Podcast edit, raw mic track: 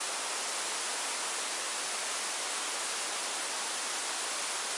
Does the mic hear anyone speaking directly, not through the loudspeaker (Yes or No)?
No